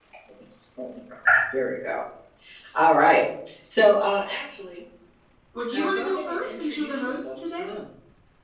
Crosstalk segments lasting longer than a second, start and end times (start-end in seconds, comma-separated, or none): 5.7-7.6